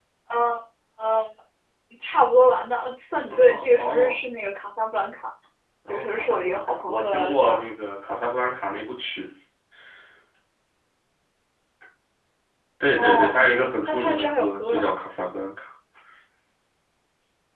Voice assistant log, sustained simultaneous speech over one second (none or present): present